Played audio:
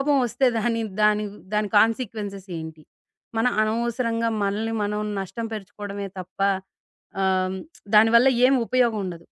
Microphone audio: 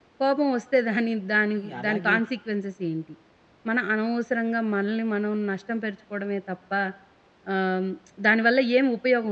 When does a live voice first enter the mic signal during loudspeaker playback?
1.6 s

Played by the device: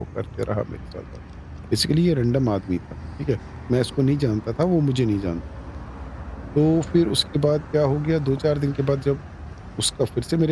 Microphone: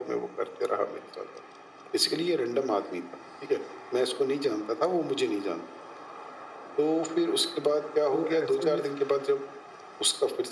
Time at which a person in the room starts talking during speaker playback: 8.1 s

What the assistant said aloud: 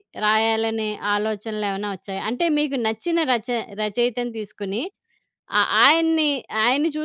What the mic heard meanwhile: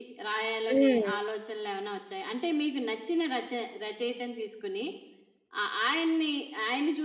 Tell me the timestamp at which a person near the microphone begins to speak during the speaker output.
0.7 s

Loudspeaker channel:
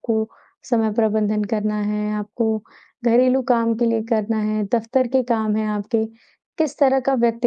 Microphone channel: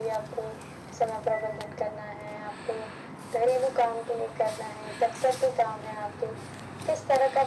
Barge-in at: none

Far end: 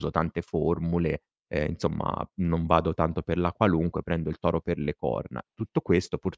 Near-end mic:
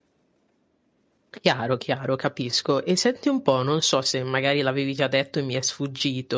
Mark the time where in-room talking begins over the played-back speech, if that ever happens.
1.4 s

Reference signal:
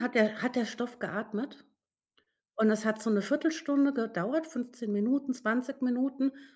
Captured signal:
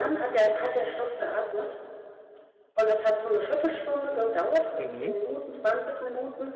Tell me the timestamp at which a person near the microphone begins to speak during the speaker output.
4.8 s

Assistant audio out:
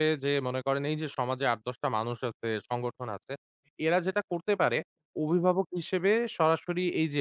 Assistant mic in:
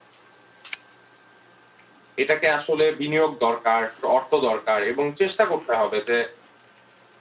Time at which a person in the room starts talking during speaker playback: 2.2 s

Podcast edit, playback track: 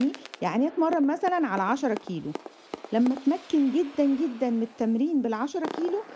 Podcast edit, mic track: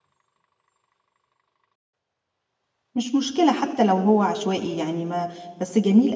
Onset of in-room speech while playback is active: 3.0 s

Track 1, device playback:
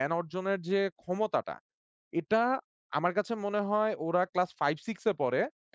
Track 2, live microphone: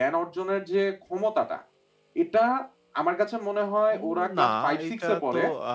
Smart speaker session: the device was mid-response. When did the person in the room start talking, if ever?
4.0 s

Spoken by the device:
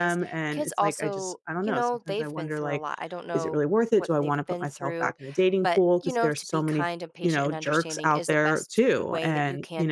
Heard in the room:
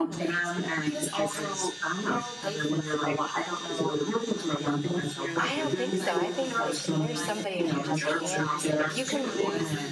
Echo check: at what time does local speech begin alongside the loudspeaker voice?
5.4 s

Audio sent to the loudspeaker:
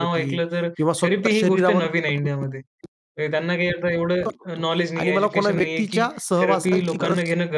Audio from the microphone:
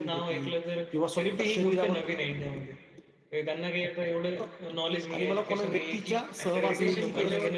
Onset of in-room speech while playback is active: 6.4 s

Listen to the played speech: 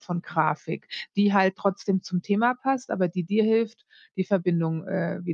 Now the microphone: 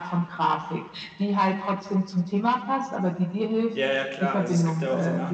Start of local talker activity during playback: 3.8 s

